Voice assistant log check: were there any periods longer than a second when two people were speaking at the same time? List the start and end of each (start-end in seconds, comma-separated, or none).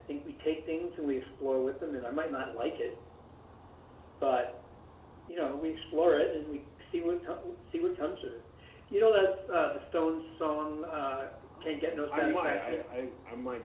11.6-12.9